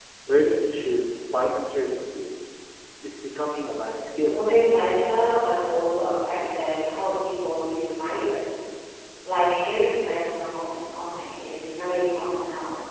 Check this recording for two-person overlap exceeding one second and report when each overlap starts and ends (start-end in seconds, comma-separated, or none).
none